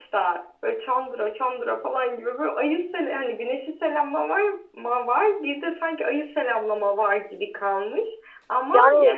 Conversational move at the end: listening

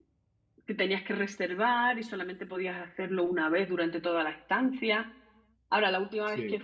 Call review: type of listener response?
listening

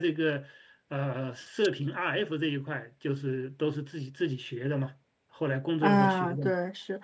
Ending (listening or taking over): taking over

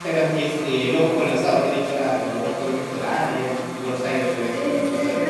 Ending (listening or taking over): taking over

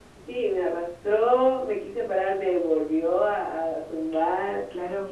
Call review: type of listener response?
listening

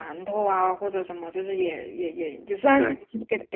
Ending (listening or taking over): listening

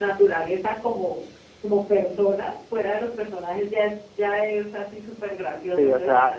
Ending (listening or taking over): taking over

